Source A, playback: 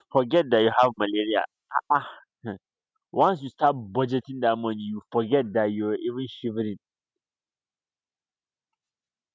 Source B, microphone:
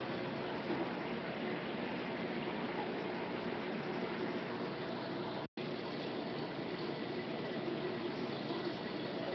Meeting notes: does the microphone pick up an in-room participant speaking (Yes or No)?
No